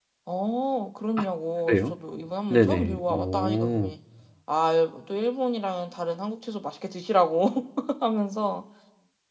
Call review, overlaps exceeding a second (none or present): present